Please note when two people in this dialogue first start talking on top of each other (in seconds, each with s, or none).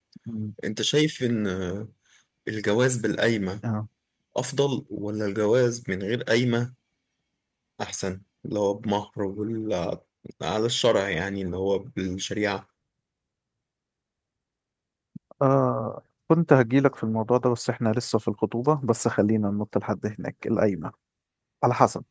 none